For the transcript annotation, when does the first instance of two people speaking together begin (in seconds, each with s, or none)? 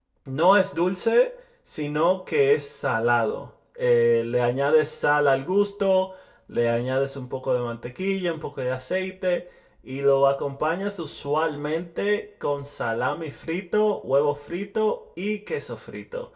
none